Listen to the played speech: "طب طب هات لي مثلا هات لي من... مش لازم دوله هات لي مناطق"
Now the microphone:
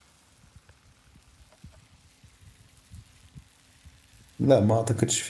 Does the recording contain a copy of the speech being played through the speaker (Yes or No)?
No